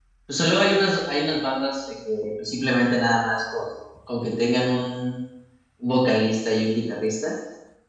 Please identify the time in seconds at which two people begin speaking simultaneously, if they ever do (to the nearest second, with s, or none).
none